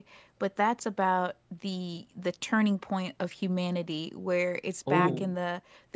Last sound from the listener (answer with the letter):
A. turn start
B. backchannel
B